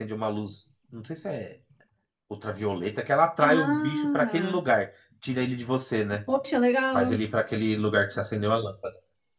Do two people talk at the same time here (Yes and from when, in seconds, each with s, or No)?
Yes, from 3.4 s